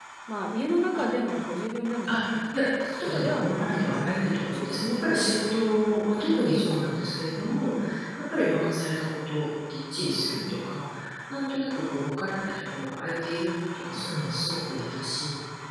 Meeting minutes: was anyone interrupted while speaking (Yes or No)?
Yes